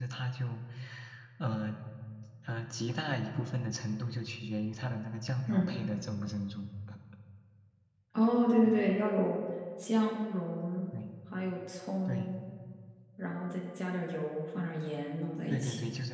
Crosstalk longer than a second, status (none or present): none